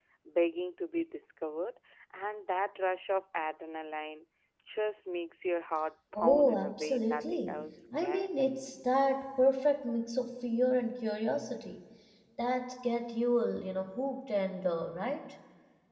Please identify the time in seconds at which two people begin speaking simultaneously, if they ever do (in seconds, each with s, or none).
6.2 s